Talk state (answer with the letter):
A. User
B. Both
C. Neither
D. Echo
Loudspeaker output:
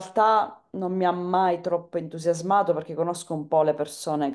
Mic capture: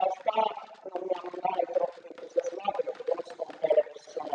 D